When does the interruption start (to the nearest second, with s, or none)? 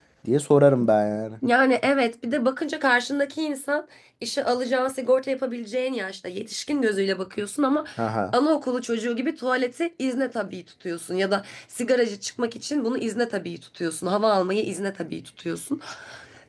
none